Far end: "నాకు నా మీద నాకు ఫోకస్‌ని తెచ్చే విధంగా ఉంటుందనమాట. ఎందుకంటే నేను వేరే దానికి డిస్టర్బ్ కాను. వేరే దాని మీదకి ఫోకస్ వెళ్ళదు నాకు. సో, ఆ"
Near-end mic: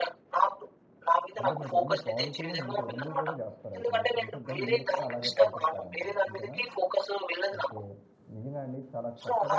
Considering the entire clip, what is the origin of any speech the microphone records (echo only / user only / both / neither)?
both